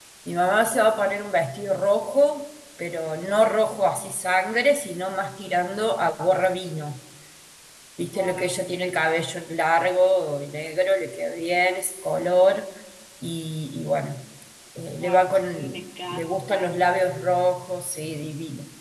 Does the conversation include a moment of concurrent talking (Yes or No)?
Yes